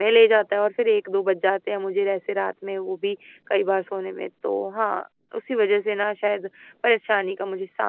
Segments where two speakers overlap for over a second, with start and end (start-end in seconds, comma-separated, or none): none